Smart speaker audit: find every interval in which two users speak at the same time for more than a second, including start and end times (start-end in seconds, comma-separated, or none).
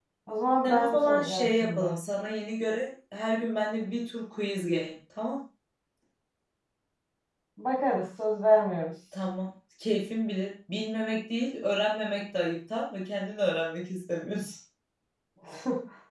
0.6-1.9